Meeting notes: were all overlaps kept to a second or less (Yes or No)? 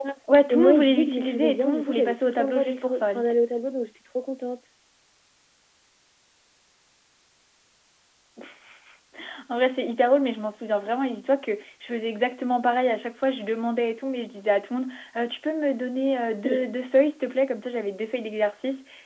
No